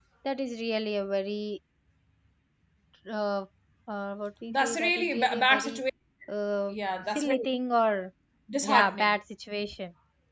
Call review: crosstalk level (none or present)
present